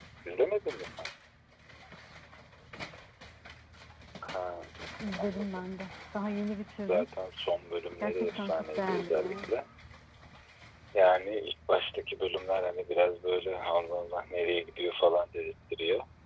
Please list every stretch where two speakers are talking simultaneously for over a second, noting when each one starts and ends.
8.0-9.5

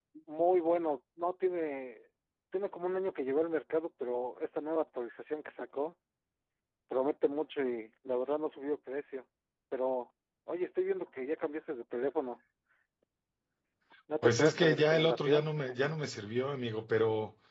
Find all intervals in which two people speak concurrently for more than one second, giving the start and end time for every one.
14.2-15.4

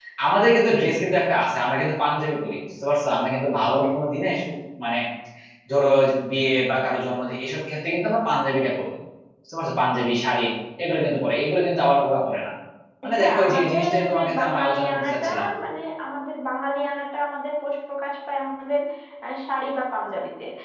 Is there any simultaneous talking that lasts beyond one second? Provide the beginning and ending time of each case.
13.2-15.3

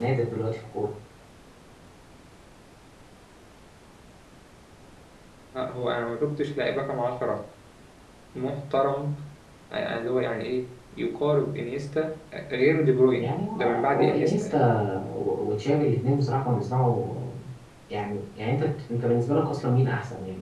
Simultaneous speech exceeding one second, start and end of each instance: 13.2-14.6

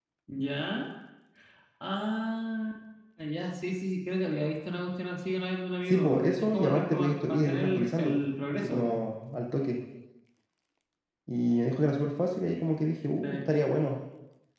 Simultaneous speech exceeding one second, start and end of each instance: 5.8-8.9

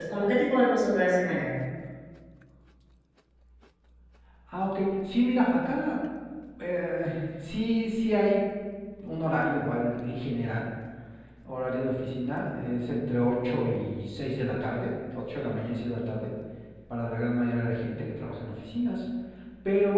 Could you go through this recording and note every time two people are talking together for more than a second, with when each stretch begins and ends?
none

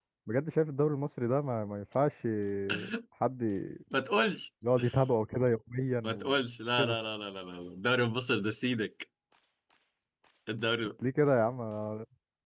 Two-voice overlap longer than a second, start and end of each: none

